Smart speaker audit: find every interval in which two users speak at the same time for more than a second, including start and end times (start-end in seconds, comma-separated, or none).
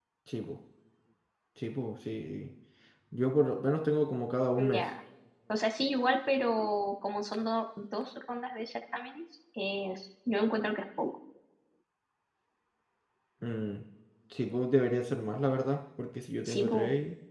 none